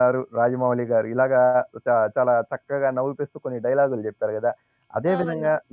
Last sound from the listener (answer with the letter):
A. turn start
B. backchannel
B